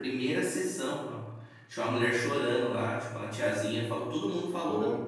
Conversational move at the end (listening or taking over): listening